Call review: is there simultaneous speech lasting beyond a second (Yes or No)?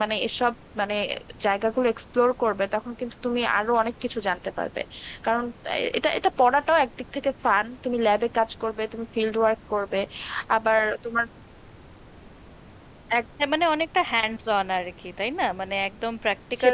No